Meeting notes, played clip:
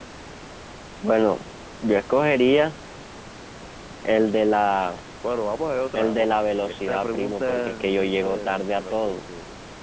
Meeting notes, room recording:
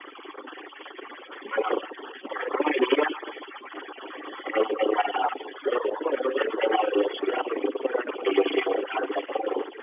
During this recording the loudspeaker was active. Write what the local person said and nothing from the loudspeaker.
none

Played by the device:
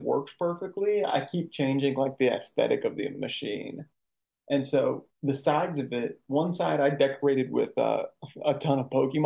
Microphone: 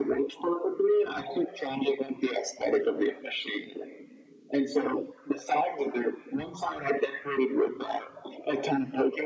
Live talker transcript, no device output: none

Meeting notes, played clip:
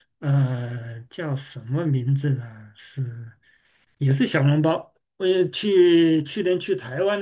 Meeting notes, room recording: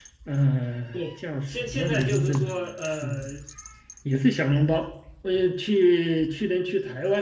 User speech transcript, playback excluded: 对，现现在就是说，呃，

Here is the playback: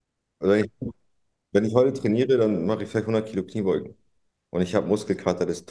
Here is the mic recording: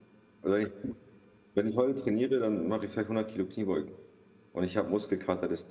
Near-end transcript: none

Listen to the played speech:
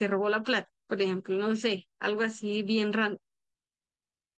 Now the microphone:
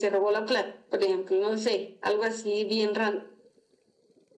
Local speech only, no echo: none

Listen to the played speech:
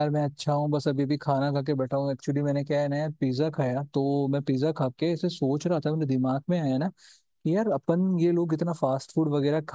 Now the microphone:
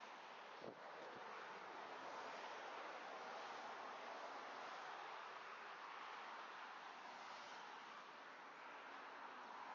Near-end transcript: none

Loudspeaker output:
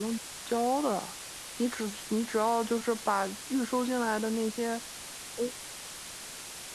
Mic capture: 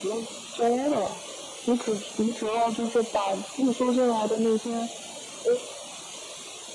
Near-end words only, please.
none

